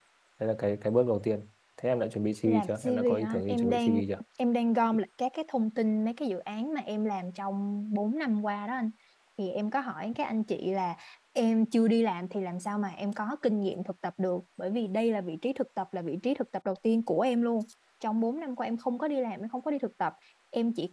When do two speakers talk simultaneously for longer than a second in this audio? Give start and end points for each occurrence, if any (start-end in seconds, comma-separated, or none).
2.5-4.0